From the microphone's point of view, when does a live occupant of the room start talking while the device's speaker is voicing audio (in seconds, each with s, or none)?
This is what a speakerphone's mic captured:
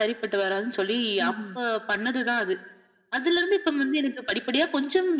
1.2 s